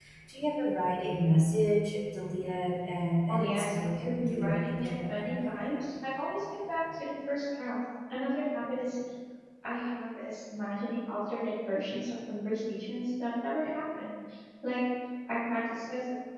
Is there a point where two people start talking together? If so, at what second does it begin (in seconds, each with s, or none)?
3.3 s